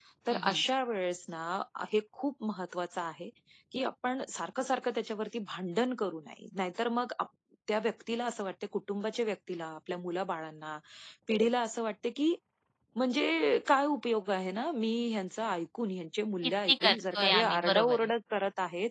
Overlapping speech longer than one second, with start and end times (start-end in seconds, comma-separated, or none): 16.7-18.1